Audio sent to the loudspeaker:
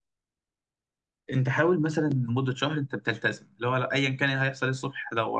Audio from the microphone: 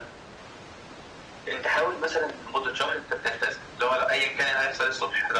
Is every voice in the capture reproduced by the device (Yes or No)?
Yes